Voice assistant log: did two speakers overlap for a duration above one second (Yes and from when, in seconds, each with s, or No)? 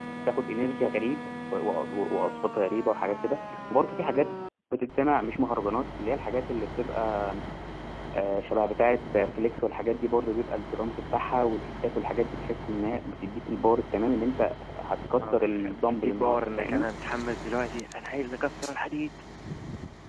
Yes, from 15.2 s